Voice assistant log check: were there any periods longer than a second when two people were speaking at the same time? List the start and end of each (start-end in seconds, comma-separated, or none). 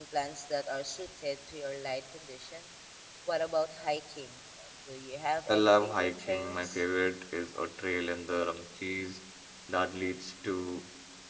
5.5-6.8